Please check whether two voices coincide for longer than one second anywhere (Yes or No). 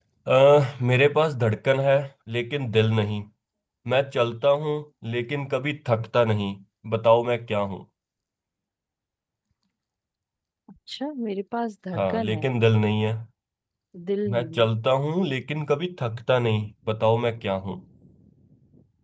No